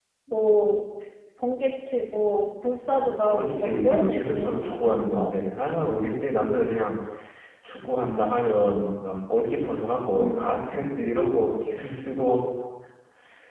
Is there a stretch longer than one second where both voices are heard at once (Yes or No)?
Yes